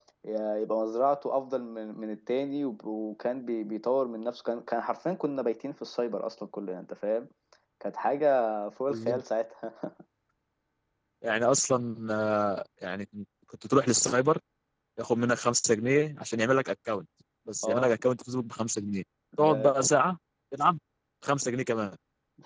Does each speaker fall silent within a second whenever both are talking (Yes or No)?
Yes